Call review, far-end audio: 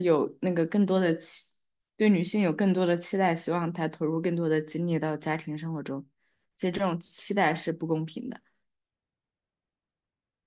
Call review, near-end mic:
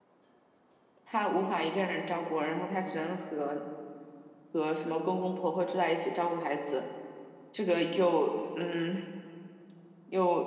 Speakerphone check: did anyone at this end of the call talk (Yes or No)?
Yes